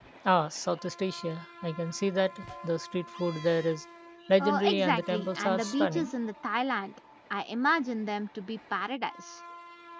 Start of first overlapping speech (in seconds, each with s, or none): 4.4 s